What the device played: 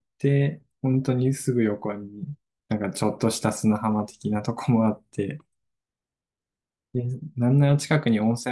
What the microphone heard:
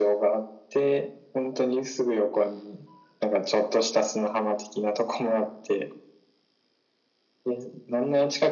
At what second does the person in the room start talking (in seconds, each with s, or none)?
none